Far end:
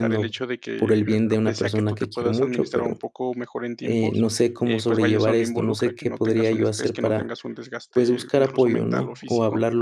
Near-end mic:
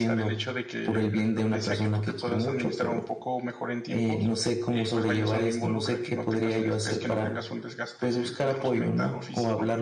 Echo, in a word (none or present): present